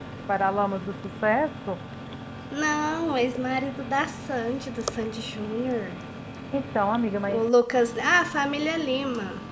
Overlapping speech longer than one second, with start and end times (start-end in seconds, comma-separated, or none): none